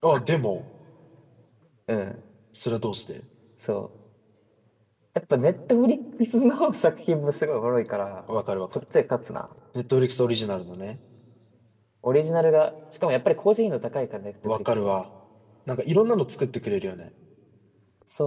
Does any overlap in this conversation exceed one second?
No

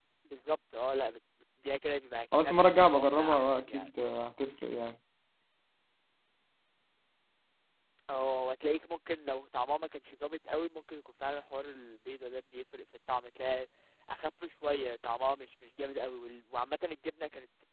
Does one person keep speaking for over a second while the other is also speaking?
Yes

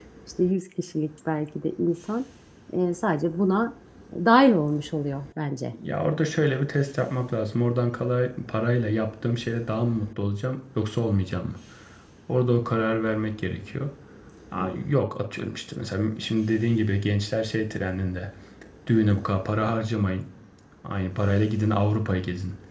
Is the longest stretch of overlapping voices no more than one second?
Yes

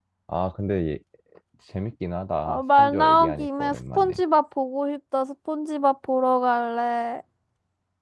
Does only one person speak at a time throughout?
No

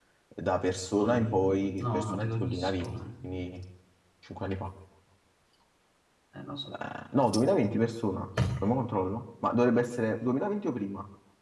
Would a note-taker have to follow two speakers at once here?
Yes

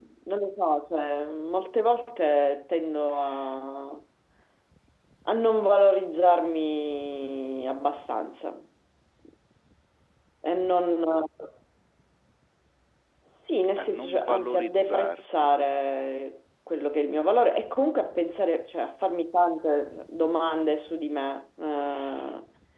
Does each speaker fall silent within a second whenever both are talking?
No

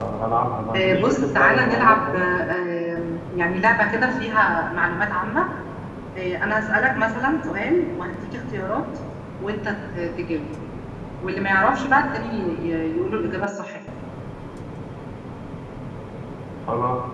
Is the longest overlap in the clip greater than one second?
Yes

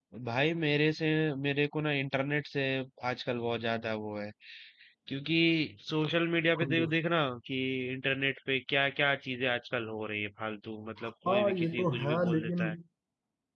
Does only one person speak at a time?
No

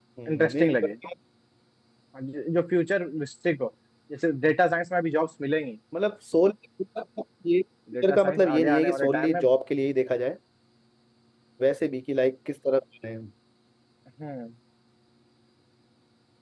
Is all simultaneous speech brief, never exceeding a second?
No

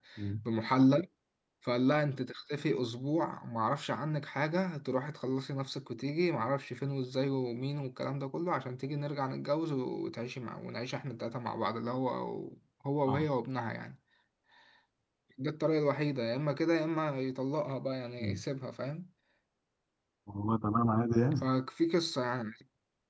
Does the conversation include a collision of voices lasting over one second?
No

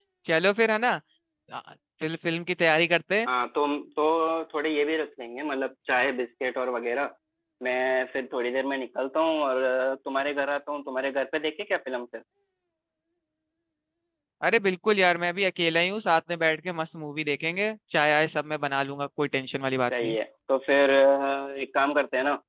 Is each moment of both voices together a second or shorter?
Yes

